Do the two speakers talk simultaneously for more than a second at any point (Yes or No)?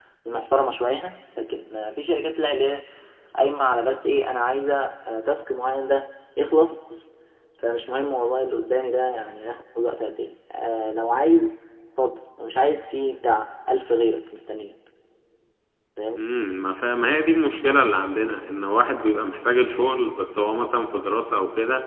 No